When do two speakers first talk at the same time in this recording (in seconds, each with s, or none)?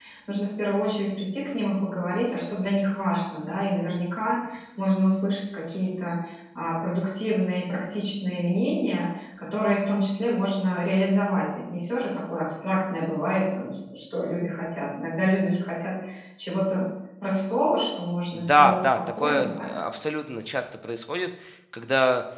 18.3 s